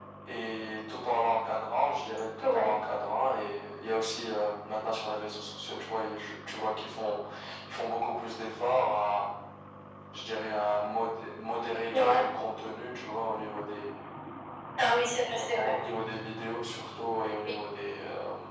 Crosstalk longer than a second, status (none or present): none